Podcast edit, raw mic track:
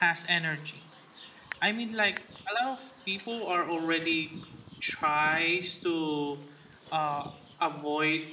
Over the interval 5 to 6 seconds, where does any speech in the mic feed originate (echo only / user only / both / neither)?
echo only